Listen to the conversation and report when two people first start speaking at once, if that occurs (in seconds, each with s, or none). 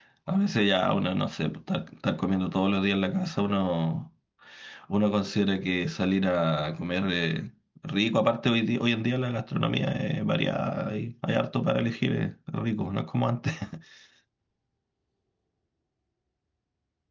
none